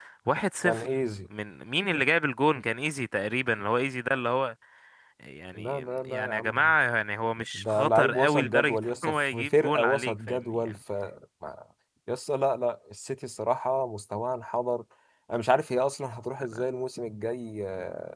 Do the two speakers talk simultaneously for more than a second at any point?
Yes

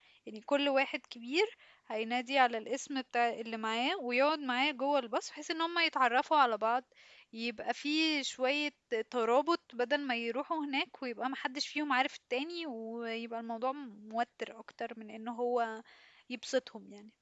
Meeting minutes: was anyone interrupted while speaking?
No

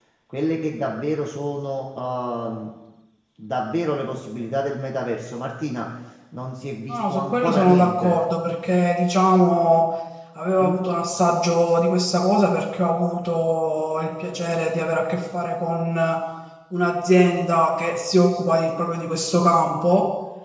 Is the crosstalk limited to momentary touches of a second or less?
No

